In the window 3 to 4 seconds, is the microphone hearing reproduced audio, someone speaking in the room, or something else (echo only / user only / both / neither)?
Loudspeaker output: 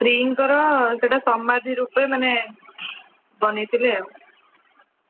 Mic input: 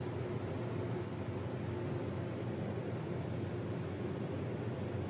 neither